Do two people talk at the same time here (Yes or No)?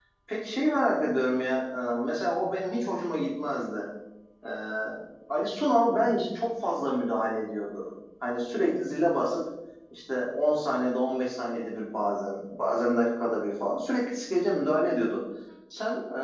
No